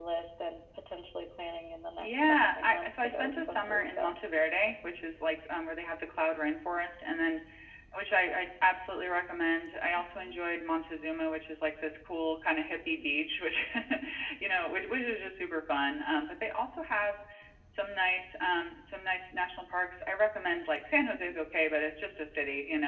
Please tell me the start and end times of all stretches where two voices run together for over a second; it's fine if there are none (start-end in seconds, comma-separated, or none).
2.0-4.1